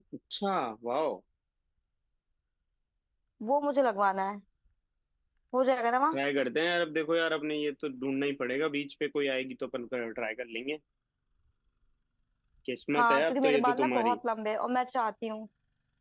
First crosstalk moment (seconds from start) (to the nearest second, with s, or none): 13 s